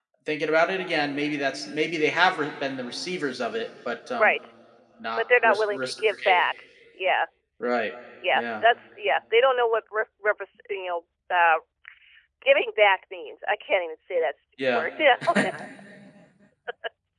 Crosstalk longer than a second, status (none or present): present